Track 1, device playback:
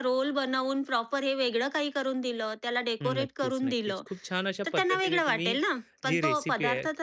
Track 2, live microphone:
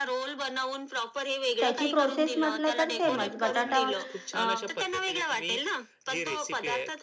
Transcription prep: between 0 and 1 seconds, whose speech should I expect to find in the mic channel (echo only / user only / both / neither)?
echo only